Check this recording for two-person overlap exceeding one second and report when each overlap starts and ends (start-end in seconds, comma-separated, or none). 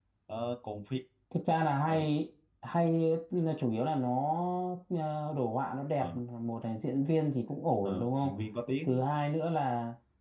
none